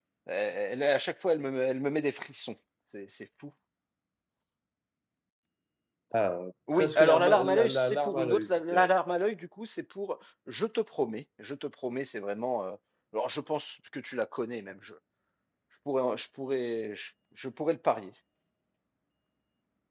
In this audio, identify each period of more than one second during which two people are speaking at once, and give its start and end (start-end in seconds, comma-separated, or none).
6.7-8.9